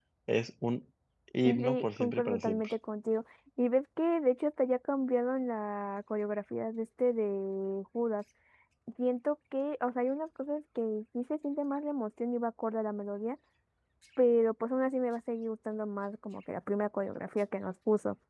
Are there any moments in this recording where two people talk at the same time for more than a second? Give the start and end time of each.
1.4-2.7

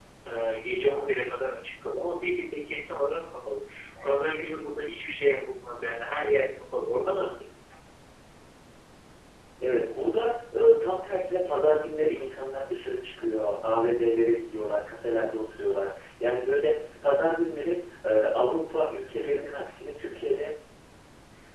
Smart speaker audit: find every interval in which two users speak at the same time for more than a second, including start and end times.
none

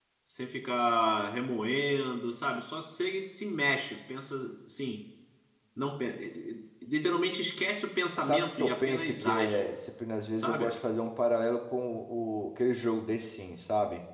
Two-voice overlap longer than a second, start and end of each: 8.2-9.7

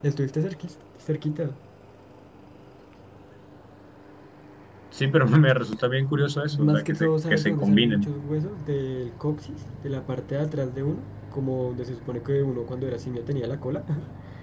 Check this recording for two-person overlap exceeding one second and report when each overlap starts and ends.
6.2-8.1

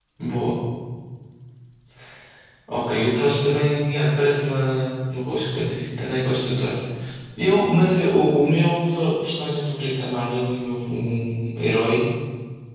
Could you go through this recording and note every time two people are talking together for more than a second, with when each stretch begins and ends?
none

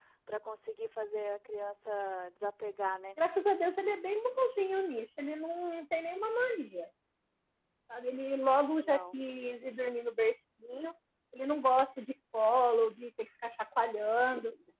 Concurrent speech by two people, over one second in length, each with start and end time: none

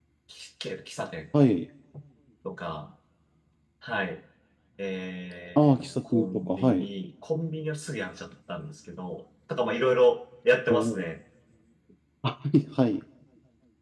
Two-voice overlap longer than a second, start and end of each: 5.6-6.8

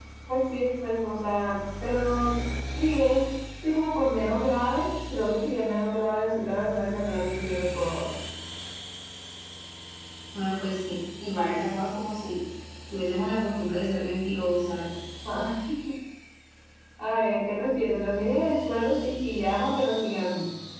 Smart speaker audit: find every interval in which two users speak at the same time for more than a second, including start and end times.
none

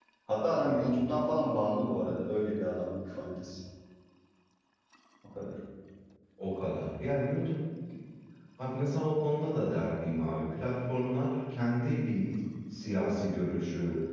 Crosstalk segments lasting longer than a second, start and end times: none

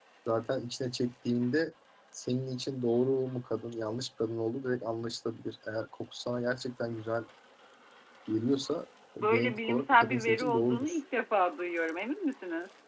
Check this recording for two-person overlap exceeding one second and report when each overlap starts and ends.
9.2-11.0

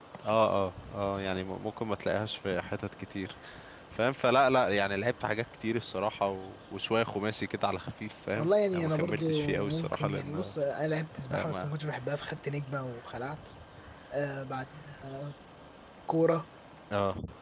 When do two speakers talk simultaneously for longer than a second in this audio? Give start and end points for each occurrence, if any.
8.4-10.5

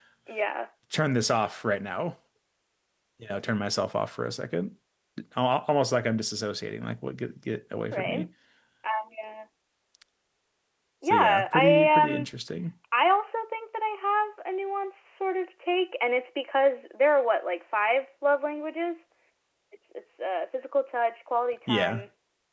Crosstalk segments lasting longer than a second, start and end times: 11.0-12.3

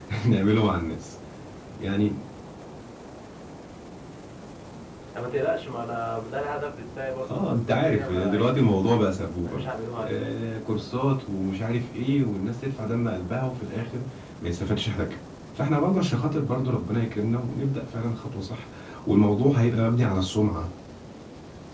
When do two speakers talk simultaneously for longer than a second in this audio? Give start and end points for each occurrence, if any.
7.3-8.5

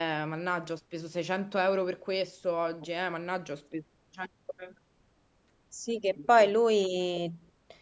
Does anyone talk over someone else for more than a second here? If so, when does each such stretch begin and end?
none

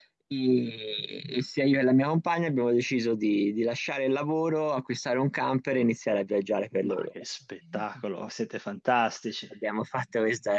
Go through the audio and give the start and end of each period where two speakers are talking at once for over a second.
none

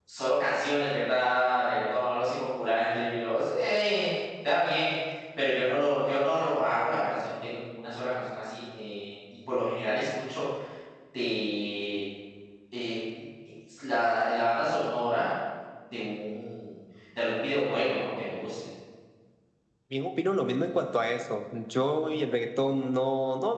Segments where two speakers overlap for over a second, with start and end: none

